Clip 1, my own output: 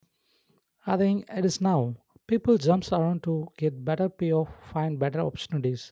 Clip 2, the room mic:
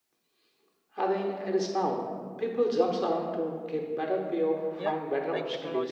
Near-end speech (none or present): present